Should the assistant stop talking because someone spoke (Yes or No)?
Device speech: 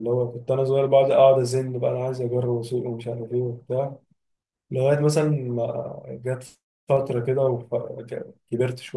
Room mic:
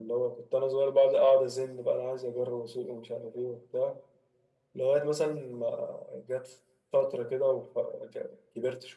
No